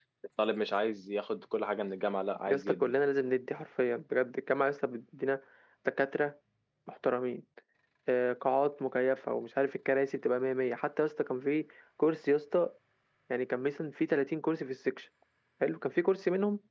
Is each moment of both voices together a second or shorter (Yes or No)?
Yes